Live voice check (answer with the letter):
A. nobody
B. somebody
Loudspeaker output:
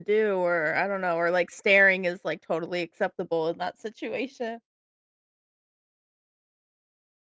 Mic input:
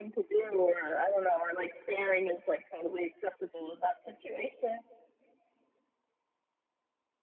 A